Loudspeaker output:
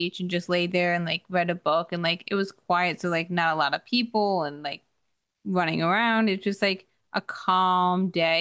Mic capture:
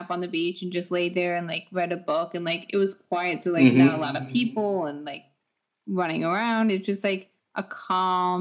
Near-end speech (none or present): present